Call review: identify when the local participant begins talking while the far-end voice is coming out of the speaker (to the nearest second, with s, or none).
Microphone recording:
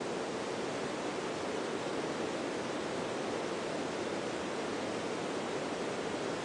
none